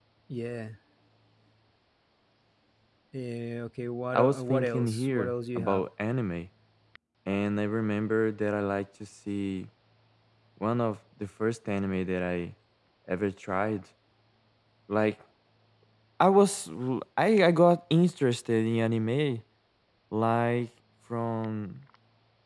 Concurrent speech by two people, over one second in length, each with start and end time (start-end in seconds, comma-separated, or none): 4.1-5.8